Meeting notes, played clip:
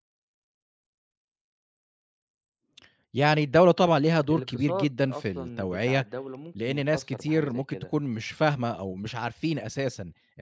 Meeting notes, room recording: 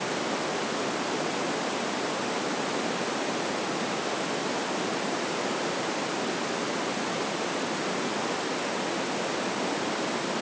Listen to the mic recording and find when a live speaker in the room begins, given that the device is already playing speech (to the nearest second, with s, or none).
none